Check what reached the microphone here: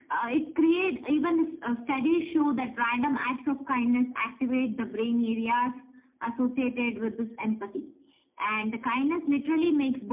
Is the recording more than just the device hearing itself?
No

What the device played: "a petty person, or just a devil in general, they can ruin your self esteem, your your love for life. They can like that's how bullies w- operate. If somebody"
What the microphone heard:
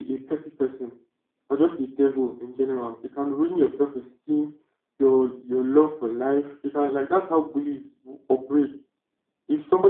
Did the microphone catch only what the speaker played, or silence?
Yes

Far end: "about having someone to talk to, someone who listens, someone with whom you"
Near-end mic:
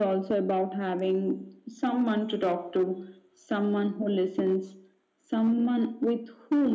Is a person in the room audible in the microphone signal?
No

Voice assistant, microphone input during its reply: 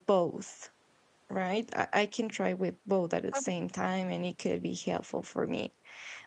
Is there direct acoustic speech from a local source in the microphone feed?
Yes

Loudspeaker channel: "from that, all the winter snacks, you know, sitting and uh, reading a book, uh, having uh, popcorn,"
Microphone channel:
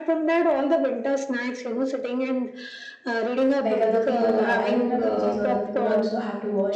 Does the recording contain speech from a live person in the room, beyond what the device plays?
Yes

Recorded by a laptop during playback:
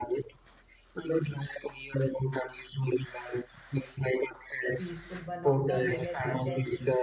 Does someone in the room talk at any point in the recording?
Yes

